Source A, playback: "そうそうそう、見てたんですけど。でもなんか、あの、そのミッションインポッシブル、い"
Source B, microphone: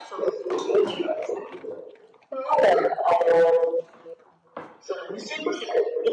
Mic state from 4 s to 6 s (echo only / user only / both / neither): echo only